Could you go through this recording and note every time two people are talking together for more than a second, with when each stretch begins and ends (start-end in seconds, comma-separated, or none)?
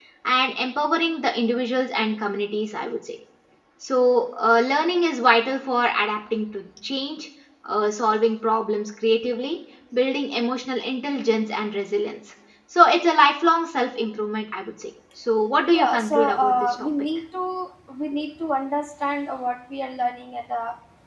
15.7-16.9